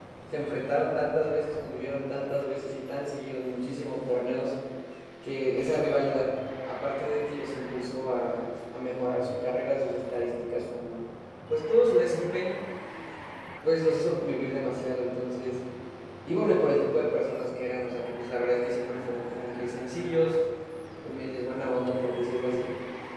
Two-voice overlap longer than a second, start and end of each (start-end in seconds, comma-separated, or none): none